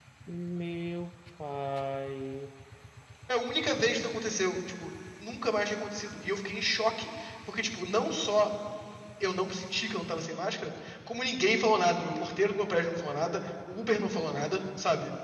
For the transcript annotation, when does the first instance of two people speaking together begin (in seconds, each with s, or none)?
none